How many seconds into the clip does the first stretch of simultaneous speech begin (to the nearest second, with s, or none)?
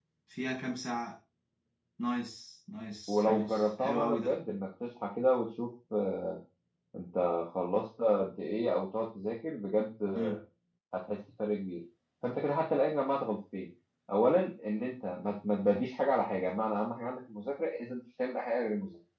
3 s